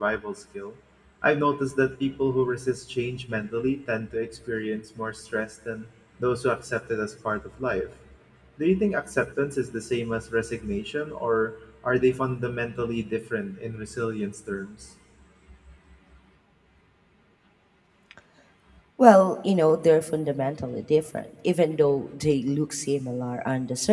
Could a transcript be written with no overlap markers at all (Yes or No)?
Yes